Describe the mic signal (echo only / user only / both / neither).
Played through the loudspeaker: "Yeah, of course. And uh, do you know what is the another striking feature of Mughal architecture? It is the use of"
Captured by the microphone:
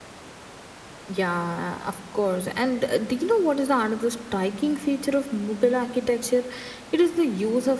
echo only